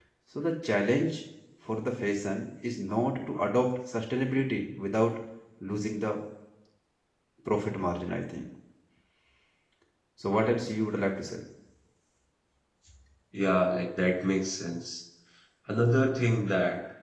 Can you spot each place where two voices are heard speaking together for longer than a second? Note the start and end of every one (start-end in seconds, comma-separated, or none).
none